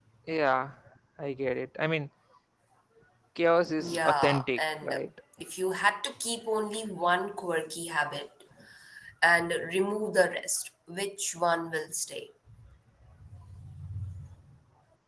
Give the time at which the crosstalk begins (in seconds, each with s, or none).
3.8 s